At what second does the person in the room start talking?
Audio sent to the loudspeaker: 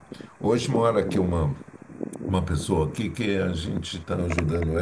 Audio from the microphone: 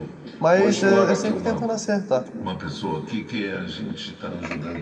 0 s

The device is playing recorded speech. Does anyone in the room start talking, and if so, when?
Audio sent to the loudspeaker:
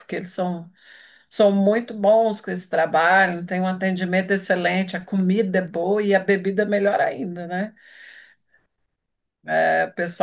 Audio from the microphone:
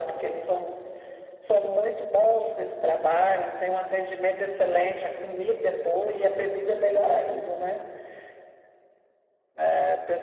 none

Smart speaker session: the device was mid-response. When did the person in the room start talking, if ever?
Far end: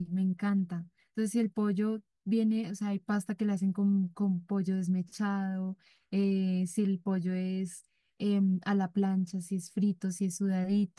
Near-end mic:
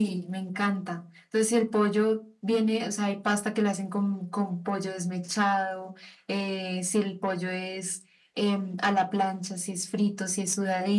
none

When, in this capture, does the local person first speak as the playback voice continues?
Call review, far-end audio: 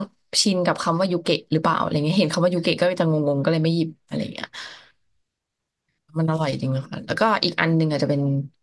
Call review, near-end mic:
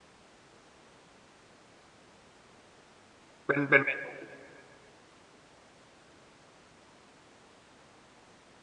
3 s

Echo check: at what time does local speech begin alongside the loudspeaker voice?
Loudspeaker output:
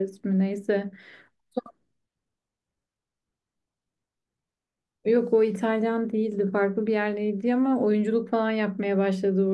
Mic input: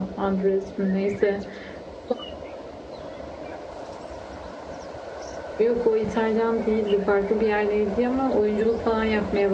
none

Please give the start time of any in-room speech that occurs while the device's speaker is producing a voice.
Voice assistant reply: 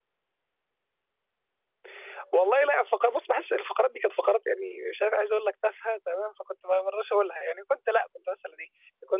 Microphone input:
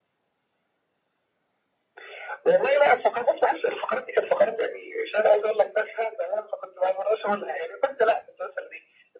none

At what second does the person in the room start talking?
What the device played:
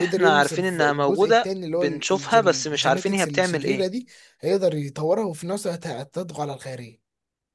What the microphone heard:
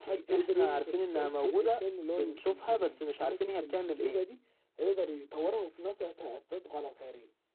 none

